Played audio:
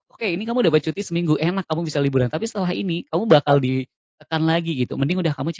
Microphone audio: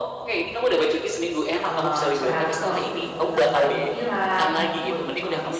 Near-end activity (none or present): present